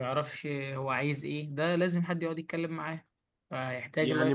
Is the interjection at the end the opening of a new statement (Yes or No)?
Yes